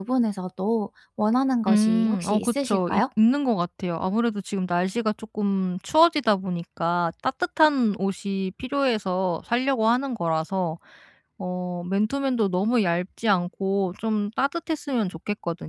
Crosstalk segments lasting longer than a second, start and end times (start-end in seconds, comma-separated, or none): 1.7-3.0